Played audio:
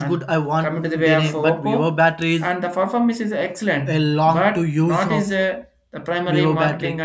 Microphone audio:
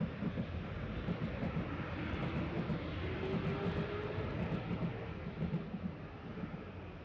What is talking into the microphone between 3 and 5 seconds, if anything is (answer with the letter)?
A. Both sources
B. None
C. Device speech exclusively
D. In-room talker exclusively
B